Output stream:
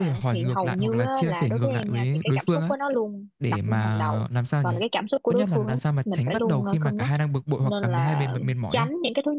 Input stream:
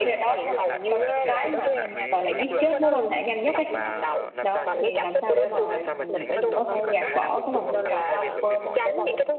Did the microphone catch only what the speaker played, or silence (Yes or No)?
No